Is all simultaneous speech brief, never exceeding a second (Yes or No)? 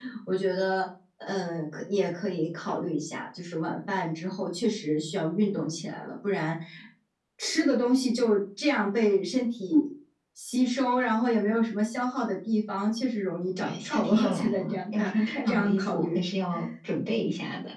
No